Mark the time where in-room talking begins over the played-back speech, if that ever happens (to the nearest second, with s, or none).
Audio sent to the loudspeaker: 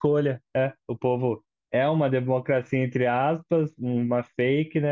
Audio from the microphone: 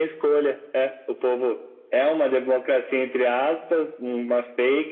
none